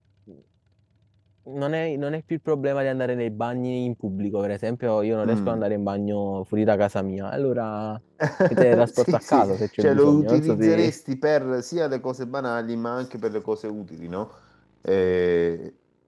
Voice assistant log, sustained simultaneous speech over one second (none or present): present